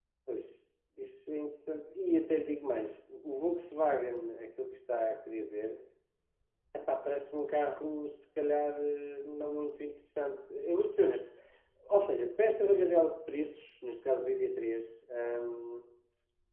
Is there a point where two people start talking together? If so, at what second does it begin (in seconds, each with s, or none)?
none